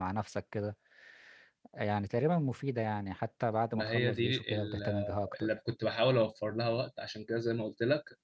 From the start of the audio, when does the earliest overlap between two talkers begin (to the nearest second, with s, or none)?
4 s